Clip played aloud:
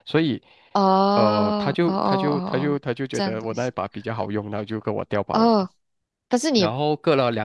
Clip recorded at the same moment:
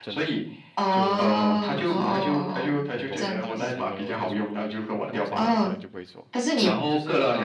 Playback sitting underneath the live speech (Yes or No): No